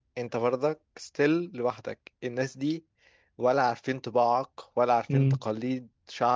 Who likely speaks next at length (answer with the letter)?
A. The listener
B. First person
B